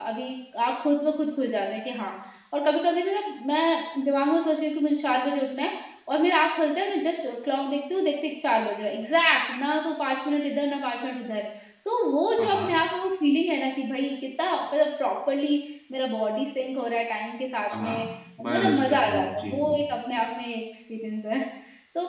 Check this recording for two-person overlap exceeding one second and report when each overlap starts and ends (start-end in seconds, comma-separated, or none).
18.5-19.7